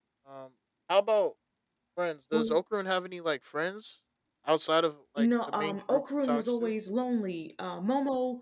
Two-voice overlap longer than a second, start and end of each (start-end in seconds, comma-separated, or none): 5.2-6.7